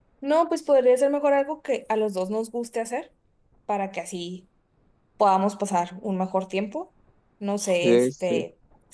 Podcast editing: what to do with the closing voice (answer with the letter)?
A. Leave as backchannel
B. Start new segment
A